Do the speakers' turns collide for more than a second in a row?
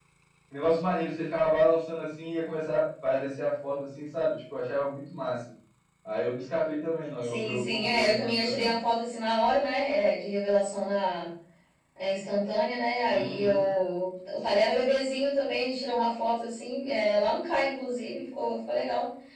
Yes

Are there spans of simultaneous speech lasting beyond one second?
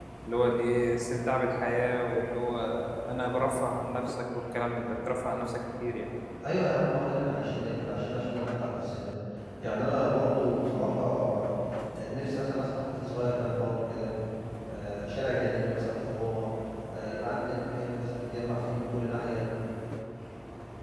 No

